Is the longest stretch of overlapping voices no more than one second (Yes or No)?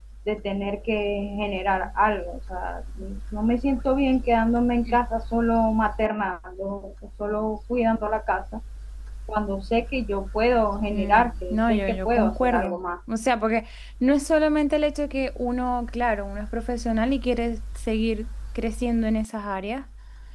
No